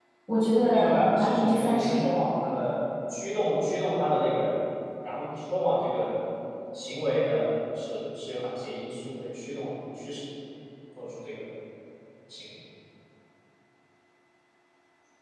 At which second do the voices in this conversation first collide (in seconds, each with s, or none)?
0.6 s